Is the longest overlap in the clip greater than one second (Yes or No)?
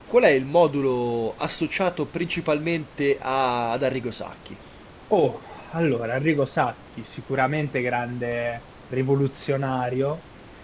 No